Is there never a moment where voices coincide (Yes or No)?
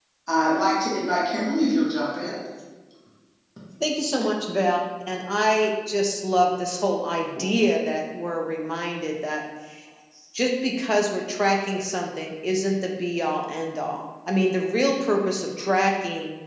Yes